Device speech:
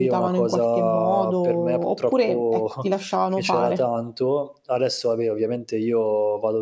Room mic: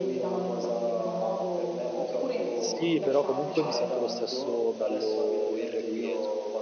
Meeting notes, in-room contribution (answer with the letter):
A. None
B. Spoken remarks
B